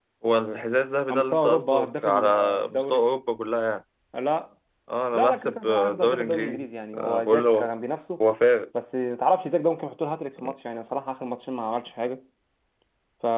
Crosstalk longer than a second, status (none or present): present